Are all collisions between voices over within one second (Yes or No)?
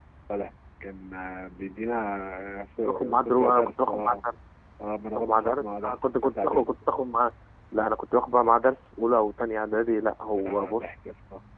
No